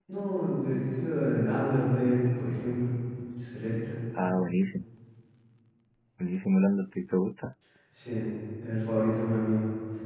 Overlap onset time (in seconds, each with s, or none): none